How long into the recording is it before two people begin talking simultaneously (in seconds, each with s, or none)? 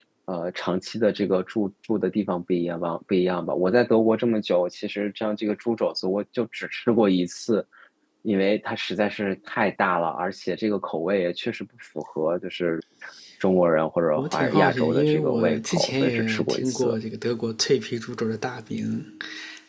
14.2 s